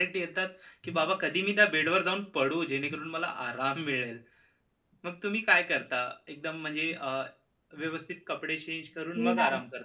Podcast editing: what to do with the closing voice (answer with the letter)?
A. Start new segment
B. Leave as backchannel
A